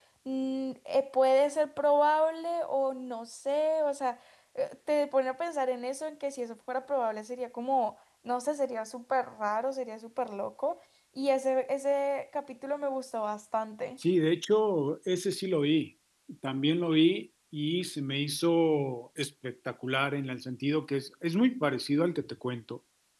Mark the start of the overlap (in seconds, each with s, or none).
none